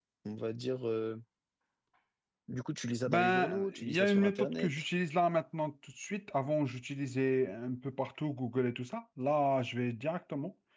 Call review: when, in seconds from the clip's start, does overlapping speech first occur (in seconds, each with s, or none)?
3.1 s